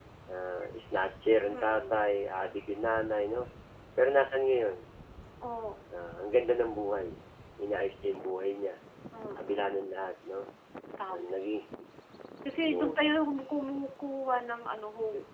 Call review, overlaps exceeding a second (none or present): none